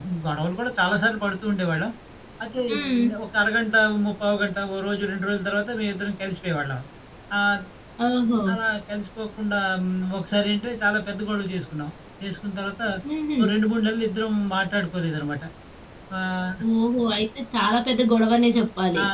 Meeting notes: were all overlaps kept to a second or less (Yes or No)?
Yes